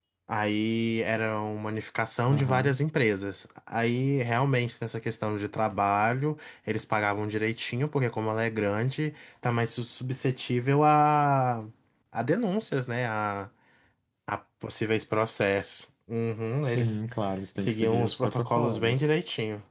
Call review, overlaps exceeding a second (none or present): present